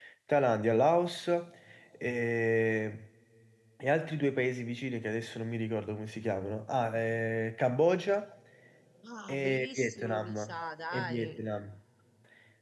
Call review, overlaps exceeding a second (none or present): present